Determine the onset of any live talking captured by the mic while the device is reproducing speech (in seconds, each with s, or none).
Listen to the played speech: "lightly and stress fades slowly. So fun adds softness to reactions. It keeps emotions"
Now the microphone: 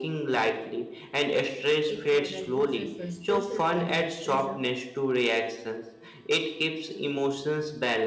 1.9 s